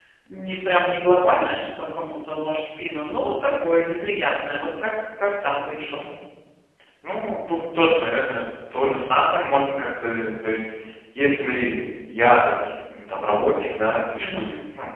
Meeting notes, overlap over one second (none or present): none